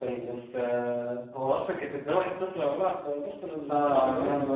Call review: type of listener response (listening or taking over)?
taking over